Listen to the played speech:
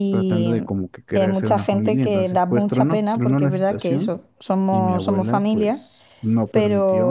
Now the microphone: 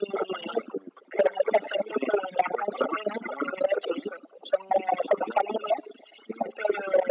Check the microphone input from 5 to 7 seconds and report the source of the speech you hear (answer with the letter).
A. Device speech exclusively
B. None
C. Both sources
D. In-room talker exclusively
A